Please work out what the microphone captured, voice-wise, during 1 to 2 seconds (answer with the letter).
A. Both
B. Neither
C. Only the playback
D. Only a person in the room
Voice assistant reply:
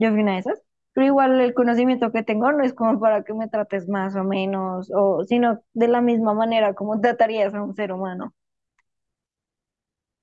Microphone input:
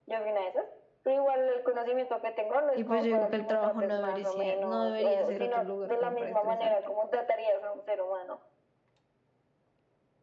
C